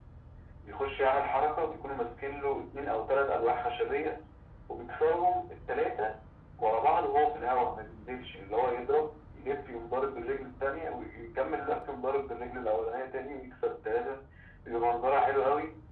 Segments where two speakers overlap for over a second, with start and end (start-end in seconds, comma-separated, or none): none